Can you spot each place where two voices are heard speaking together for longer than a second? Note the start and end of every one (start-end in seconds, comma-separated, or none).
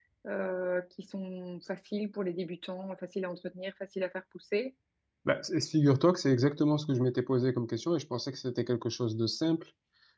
none